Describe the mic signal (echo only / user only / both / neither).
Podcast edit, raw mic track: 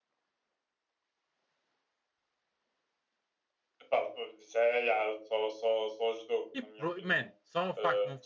both